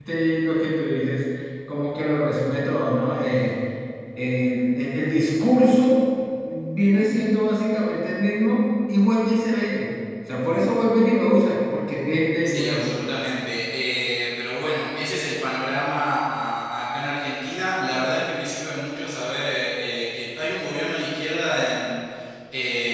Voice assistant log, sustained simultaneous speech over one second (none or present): none